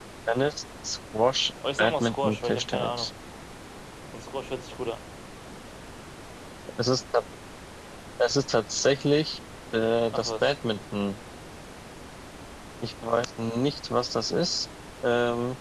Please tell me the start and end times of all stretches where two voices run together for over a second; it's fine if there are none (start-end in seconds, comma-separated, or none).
1.8-3.1